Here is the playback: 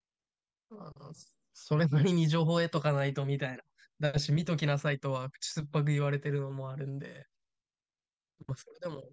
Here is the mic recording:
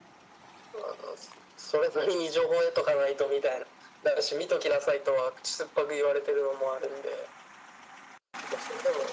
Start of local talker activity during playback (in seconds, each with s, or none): none